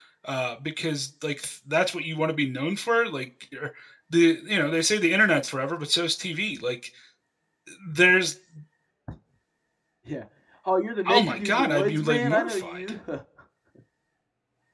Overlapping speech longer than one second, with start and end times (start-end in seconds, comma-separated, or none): 11.1-12.8